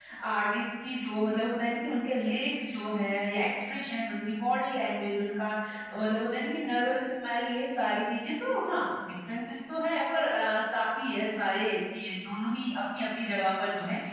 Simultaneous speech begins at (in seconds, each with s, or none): none